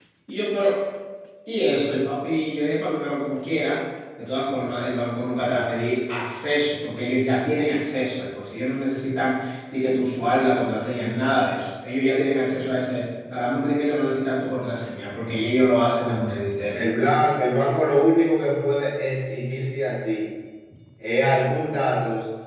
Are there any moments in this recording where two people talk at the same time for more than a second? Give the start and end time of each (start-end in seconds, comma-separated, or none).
none